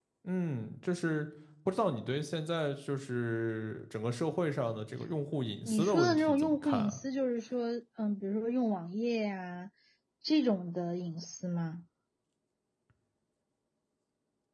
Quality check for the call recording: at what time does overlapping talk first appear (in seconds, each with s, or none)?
5.7 s